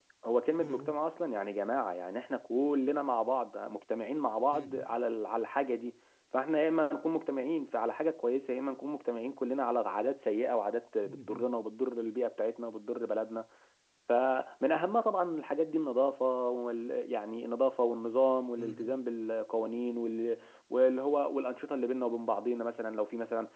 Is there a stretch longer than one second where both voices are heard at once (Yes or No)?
No